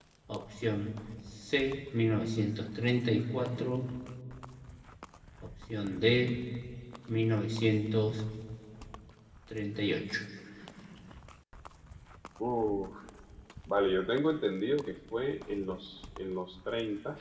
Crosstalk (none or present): none